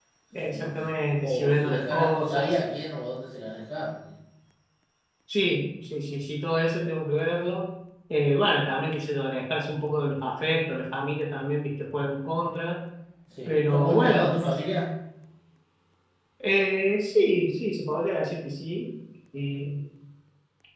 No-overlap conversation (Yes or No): No